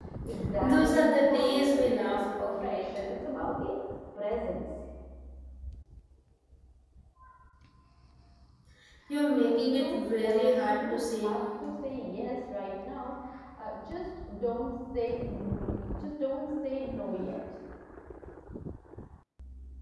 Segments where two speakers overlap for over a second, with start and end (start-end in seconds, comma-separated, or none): 0.6-3.1, 9.4-11.4